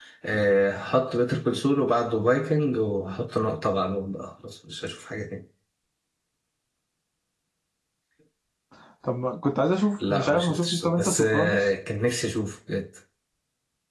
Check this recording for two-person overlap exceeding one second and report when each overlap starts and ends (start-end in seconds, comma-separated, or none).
10.1-11.7